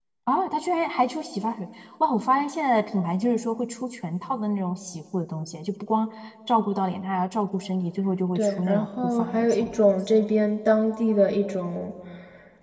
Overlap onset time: 8.4 s

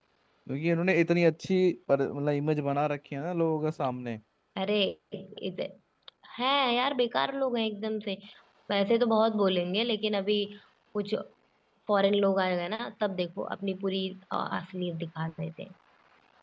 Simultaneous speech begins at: none

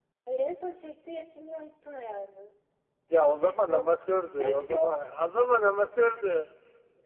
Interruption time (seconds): 3.4 s

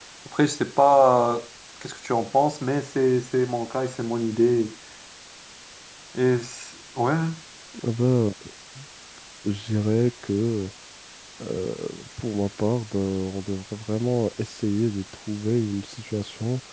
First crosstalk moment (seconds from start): none

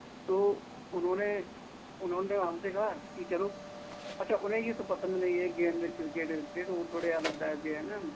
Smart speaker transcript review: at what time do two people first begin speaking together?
none

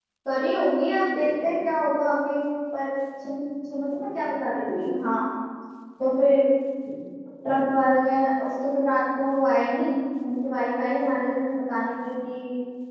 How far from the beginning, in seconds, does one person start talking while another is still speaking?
none

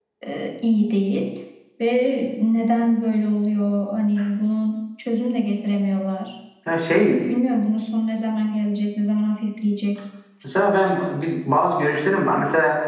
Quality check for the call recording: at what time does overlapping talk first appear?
none

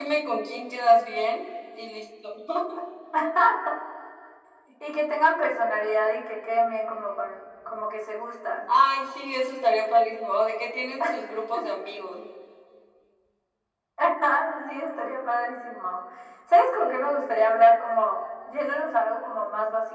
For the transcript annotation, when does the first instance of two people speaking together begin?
none

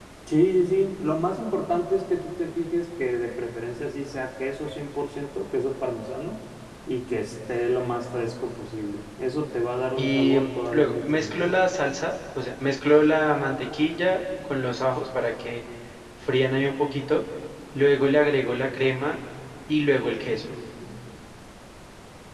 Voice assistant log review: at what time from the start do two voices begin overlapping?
10.0 s

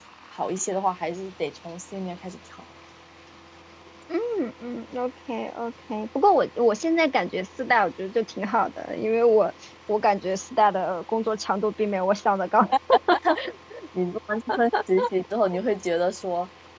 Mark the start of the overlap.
none

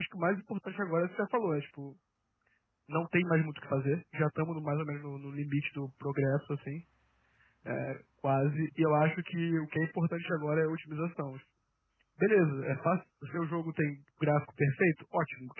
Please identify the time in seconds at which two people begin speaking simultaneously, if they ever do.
none

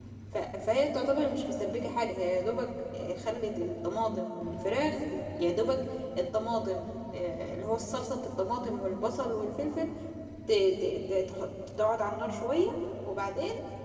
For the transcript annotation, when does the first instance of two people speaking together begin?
none

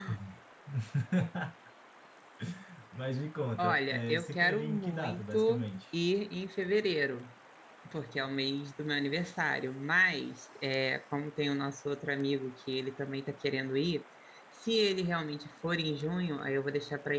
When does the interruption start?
3.6 s

